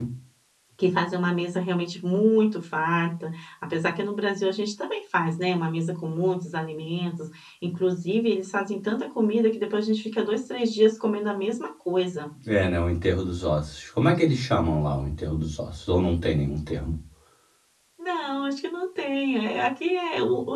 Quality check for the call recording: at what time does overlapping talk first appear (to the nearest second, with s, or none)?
none